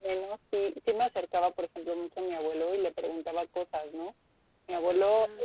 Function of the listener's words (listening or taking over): listening